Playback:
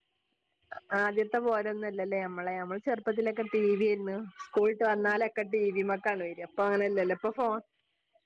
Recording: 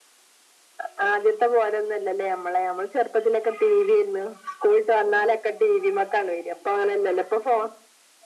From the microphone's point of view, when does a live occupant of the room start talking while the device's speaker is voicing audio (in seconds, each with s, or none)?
none